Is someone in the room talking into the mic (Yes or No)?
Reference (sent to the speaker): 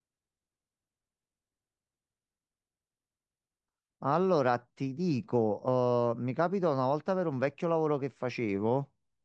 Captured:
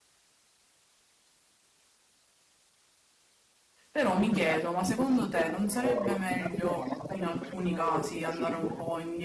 Yes